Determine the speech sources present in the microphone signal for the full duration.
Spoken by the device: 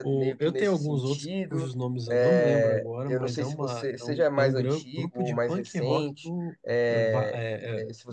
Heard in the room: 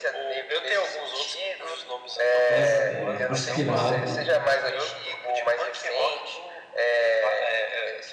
both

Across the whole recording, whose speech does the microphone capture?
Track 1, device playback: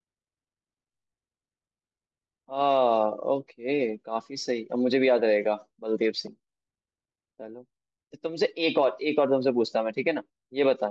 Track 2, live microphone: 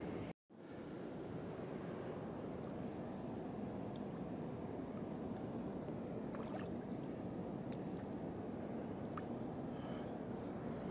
neither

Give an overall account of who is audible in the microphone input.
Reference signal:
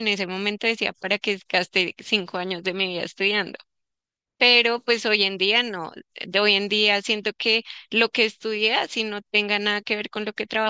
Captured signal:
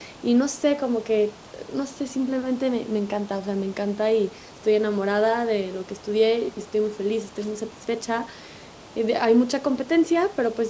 user only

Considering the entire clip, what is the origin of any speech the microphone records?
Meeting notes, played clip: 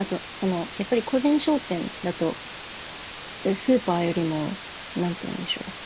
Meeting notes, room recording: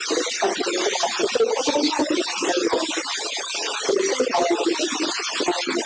echo only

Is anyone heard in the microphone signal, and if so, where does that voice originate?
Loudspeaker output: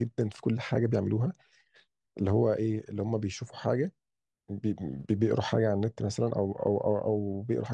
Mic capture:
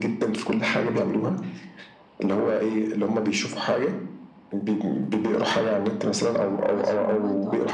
both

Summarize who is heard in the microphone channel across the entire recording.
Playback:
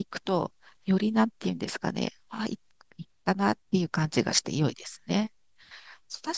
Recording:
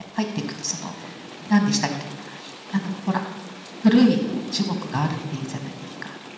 user only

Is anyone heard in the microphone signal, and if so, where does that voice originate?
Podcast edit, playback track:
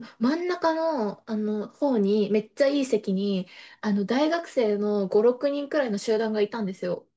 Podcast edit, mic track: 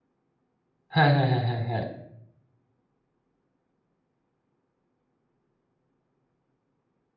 user only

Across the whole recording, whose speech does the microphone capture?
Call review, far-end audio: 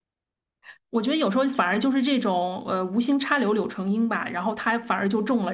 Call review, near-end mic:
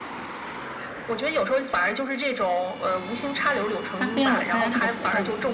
both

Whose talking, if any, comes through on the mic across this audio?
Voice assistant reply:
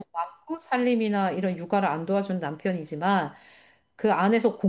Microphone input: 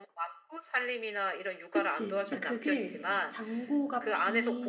both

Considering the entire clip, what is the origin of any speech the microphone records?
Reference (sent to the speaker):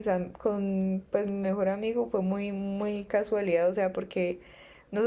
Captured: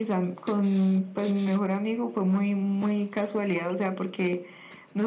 echo only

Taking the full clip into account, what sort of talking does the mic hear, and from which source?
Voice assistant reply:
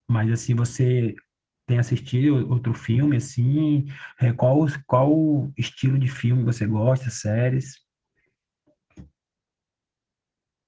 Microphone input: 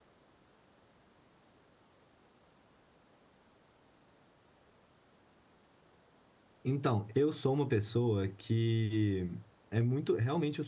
user only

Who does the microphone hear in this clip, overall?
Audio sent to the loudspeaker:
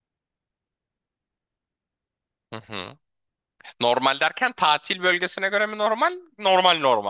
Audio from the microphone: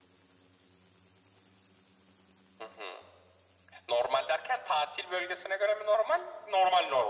echo only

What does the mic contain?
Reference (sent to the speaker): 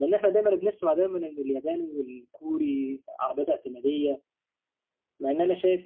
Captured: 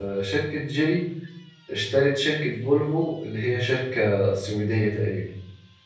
user only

